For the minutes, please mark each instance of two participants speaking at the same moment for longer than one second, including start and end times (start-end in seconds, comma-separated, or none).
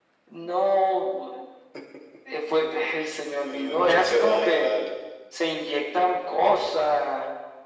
3.5-4.7